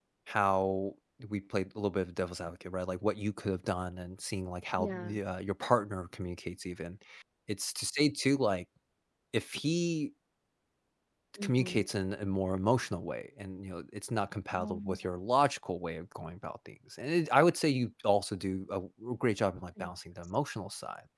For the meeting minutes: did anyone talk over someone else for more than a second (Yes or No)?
No